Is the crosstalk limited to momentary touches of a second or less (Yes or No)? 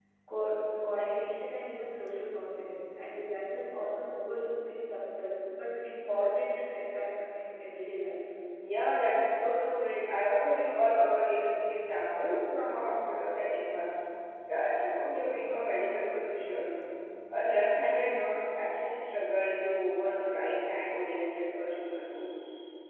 Yes